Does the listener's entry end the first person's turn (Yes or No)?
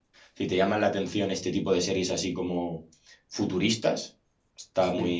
No